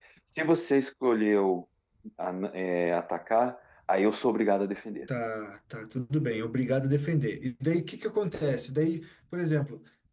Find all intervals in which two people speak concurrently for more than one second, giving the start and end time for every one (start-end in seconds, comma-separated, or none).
none